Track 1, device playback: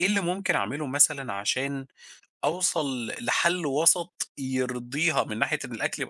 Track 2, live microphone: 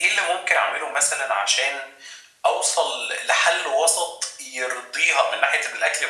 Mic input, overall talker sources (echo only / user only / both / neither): echo only